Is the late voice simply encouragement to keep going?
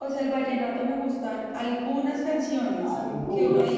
Yes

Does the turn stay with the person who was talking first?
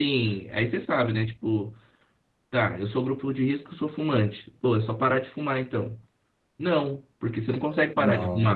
Yes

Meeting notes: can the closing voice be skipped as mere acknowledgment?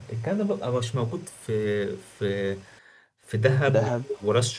Yes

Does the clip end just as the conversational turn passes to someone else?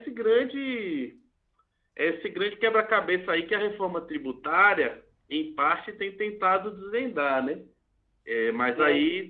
Yes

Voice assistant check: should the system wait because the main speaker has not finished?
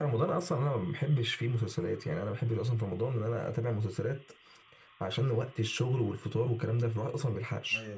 No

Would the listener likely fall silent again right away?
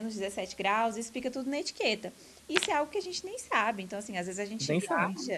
Yes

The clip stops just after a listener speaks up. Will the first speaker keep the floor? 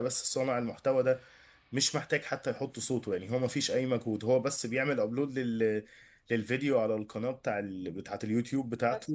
Yes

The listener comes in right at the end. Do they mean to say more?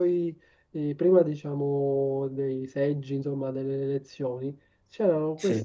No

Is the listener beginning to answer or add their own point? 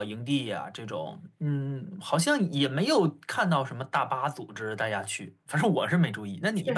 Yes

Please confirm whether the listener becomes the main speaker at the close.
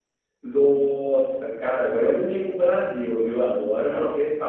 No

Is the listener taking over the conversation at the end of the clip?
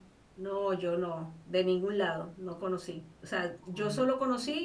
No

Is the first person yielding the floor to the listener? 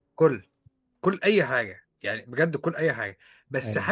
No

